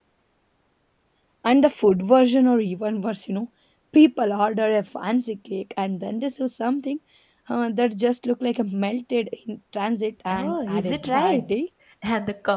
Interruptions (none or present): present